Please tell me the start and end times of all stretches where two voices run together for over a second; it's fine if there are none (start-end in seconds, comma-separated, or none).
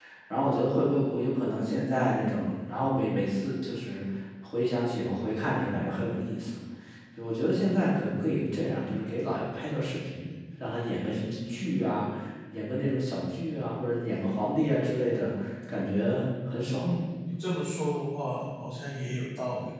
none